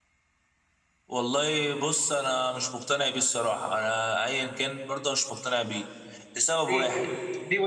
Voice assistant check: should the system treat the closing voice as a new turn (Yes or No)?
Yes